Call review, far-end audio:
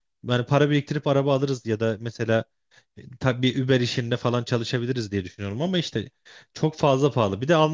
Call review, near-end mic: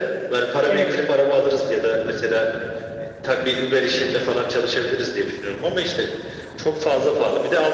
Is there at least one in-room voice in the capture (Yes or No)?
Yes